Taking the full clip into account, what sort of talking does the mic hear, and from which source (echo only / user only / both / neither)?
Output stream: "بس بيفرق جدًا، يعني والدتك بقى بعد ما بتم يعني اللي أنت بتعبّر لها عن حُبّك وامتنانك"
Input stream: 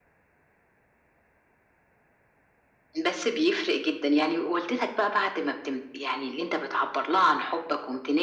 echo only